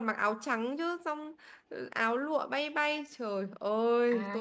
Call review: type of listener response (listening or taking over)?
taking over